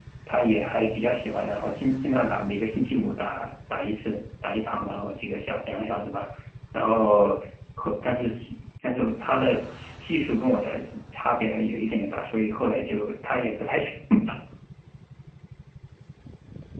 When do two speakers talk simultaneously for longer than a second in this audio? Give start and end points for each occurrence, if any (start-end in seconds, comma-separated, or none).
none